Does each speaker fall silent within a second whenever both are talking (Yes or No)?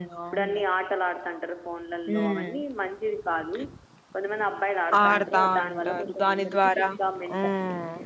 No